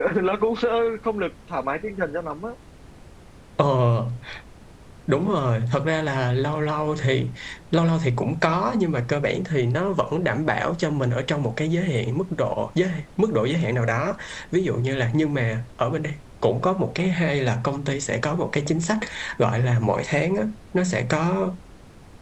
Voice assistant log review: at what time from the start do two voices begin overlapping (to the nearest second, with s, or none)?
none